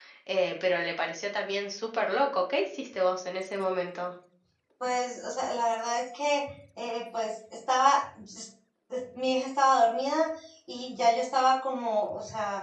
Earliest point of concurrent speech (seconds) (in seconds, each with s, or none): none